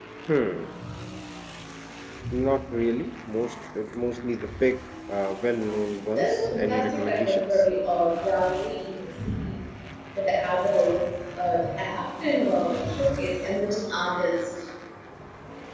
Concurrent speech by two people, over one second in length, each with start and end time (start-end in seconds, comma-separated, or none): 6.1-7.6